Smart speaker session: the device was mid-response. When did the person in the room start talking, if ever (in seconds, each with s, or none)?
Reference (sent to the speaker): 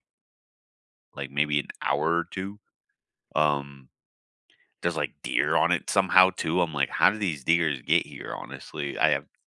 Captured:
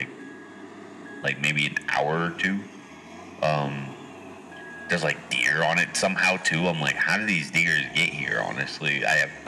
none